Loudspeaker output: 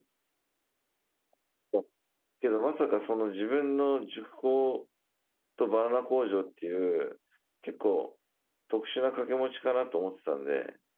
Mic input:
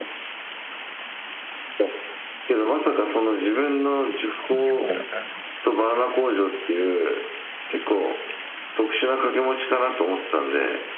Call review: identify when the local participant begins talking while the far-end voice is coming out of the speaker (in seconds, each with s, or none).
4.4 s